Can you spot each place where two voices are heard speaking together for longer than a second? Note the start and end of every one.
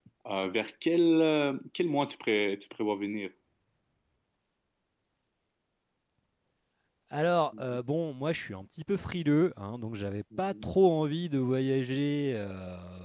none

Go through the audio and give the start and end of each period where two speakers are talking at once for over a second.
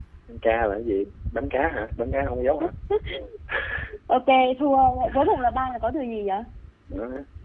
none

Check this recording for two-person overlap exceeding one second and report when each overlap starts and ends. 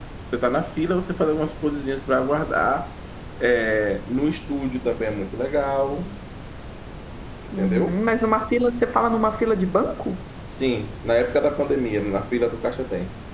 none

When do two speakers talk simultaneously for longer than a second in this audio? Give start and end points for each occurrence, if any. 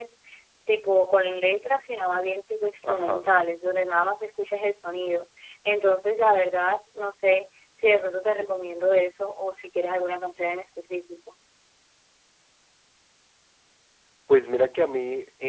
none

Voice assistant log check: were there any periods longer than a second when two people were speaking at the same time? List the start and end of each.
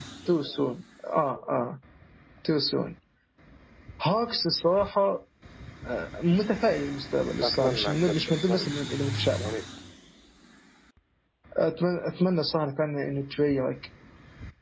7.4-8.7

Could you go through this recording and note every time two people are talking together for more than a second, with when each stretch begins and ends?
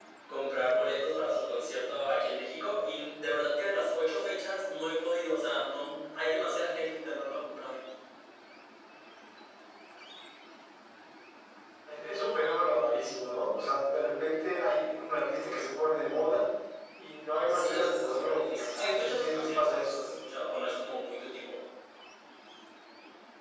17.5-20.0

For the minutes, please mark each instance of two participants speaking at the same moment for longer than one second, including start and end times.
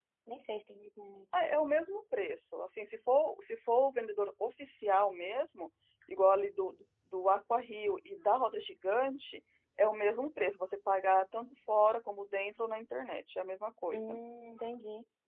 none

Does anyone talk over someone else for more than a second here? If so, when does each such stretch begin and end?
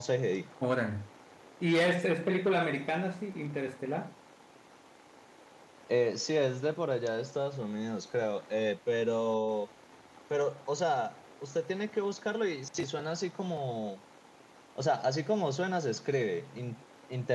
none

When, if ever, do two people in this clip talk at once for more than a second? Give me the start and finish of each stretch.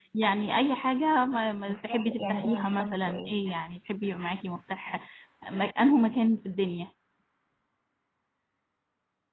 1.6-3.4

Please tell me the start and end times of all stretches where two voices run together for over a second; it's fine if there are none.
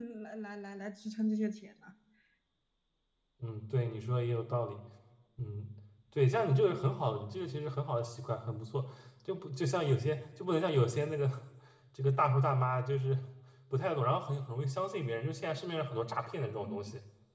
none

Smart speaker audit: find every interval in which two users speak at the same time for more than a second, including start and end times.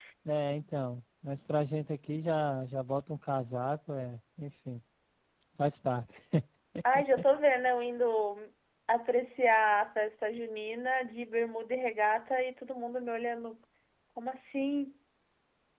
none

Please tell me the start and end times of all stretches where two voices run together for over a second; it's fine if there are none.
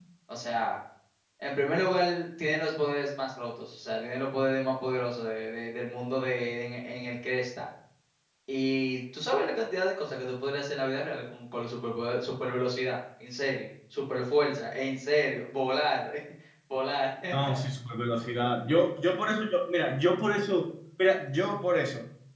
none

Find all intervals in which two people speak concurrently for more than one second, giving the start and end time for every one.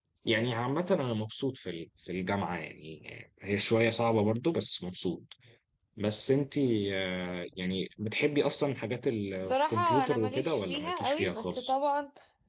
9.4-11.7

